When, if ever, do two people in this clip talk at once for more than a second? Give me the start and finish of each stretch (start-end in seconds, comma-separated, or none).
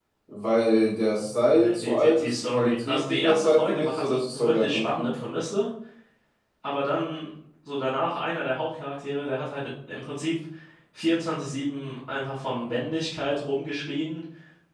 1.2-5.1